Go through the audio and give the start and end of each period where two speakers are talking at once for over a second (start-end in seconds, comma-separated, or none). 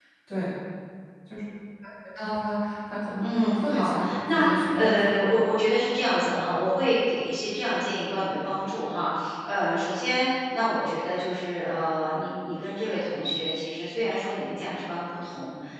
3.2-5.1